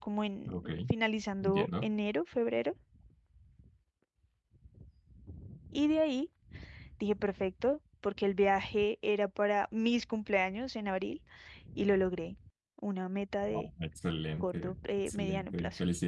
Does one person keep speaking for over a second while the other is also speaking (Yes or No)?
Yes